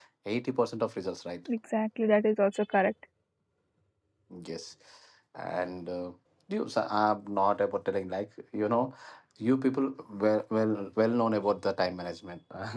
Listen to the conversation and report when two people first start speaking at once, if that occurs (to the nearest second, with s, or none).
none